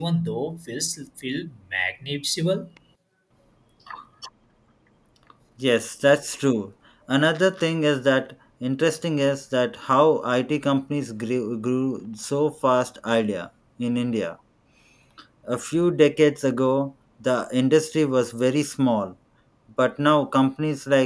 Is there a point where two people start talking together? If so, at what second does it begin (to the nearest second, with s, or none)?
none